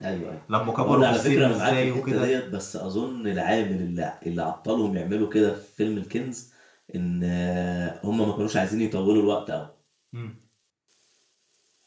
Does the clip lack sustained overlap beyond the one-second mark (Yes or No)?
No